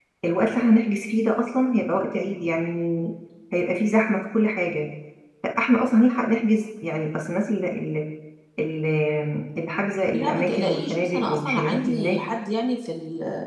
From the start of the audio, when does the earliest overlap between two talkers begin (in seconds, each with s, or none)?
10.1 s